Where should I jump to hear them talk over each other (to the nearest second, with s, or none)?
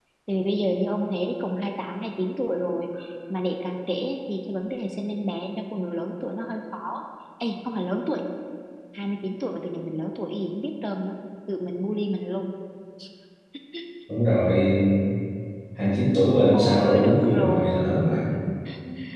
17 s